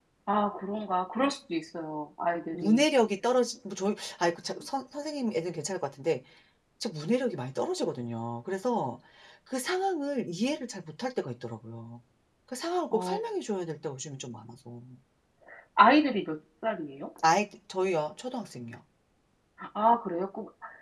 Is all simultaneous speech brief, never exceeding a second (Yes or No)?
Yes